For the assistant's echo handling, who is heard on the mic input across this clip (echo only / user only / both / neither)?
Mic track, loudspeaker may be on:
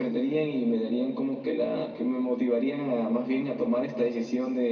echo only